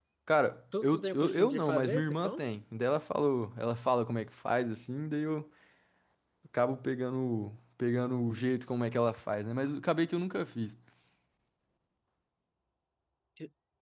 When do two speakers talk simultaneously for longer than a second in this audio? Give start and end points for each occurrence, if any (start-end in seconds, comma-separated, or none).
0.8-2.4